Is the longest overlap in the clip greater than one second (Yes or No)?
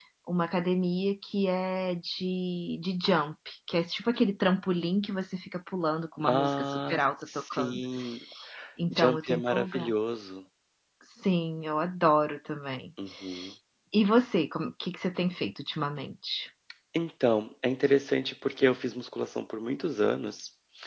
Yes